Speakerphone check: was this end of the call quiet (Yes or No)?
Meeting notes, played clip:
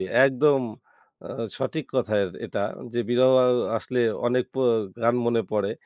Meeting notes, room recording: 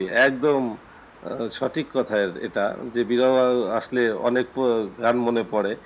Yes